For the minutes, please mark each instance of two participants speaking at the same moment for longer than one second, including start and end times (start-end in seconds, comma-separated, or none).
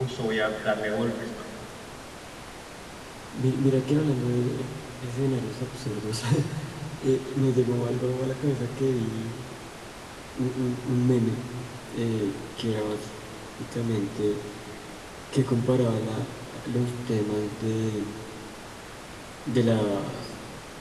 none